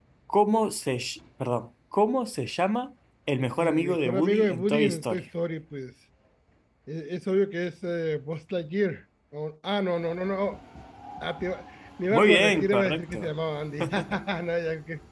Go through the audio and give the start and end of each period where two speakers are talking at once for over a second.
3.6-5.2, 12.1-13.3

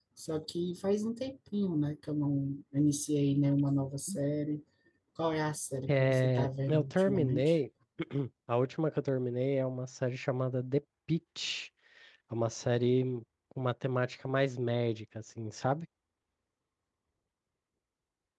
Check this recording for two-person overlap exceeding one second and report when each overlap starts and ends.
5.9-7.5

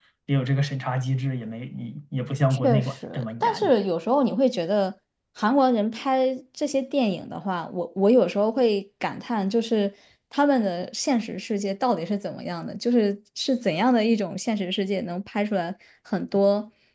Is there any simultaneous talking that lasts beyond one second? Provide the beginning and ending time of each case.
2.5-3.7

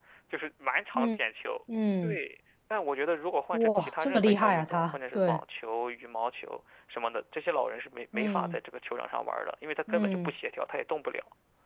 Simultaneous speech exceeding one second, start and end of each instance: 3.5-5.4

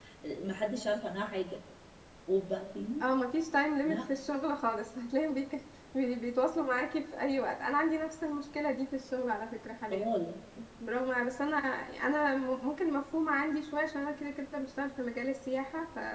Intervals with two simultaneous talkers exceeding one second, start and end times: none

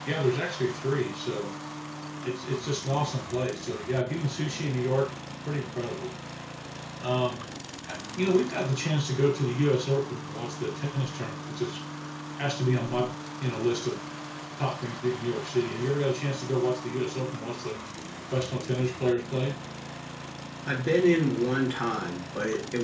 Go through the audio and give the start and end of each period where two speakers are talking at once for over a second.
none

